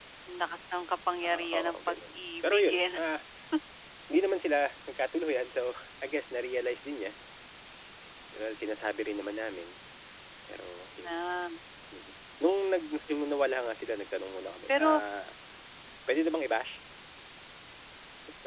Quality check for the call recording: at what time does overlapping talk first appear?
1.2 s

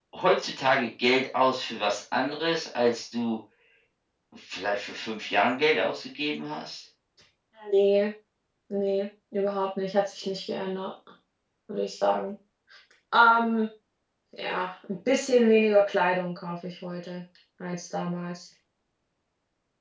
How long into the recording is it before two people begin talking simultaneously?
none

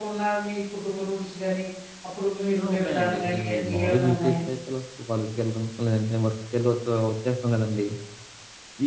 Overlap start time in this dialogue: 2.6 s

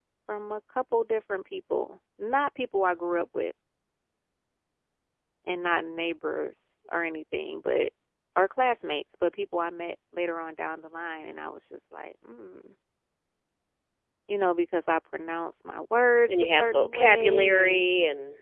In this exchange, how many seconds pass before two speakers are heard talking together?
16.3 s

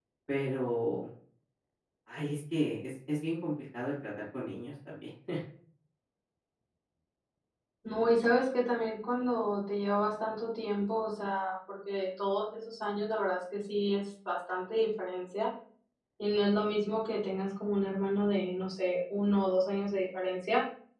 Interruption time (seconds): none

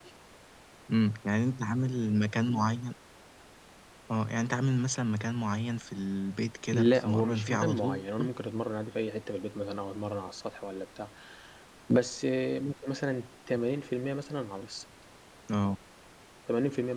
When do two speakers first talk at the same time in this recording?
6.7 s

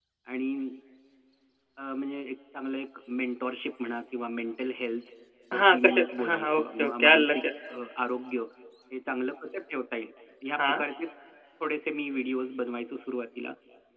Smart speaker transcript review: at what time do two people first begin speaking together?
5.5 s

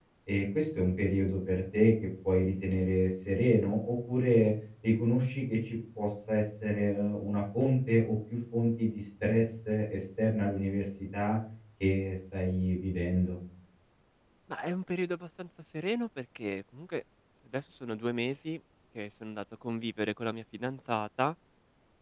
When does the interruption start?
none

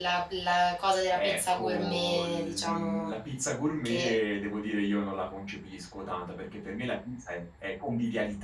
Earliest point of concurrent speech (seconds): 1.1 s

